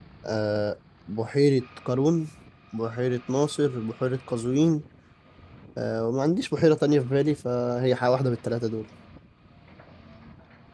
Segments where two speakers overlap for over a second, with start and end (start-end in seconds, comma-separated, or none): none